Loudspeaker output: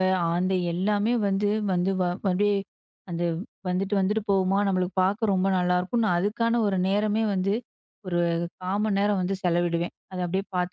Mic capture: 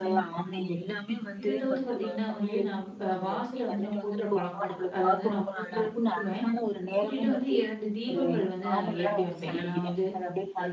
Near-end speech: present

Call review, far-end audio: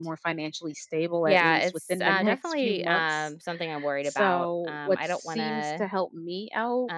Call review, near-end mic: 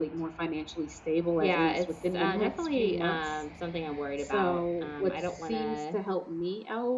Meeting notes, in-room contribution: none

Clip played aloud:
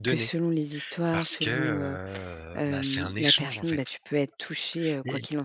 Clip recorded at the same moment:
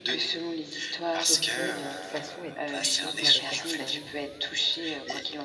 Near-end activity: present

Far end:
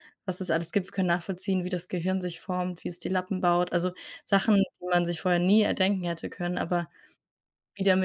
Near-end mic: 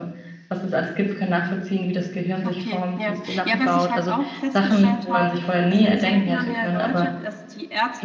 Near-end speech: present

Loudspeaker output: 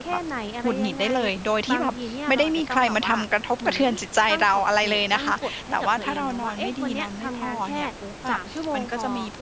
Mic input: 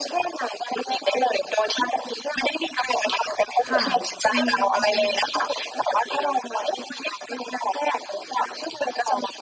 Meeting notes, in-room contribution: present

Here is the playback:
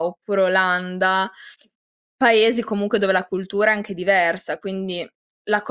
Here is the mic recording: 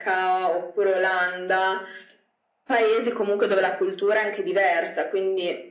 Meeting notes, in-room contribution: none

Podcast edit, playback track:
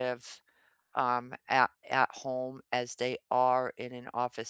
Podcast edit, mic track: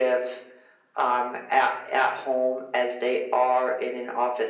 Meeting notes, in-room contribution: none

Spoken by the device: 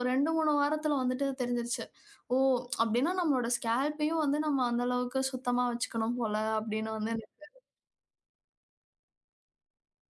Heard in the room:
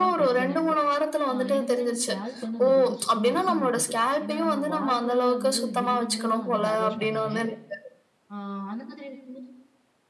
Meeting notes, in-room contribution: present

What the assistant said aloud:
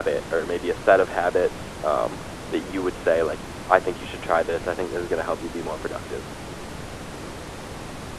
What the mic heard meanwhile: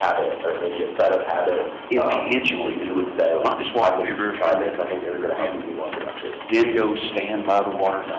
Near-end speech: present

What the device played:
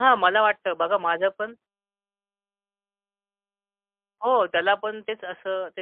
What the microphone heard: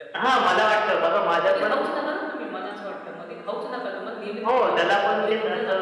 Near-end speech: present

